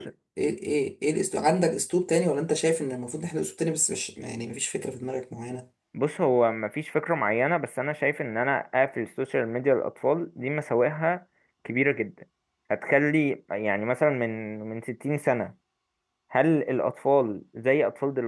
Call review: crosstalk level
none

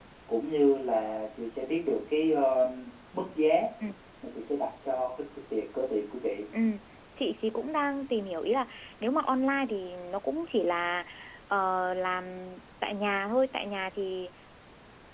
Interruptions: none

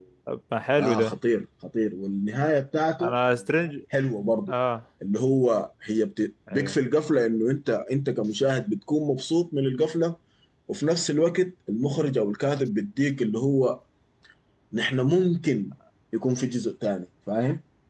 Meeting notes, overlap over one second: none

